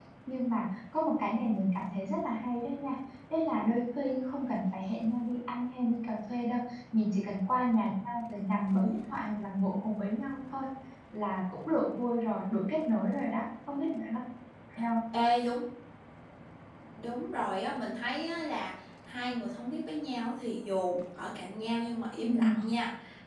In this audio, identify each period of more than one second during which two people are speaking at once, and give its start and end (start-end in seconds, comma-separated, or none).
none